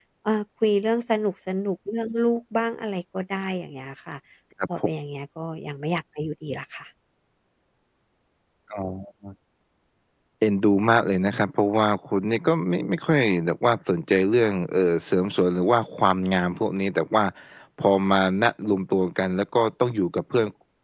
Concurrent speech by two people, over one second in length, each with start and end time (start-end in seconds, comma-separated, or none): none